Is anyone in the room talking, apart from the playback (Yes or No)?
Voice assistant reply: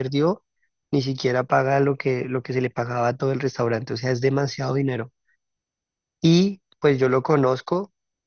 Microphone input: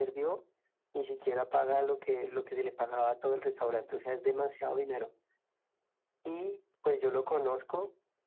No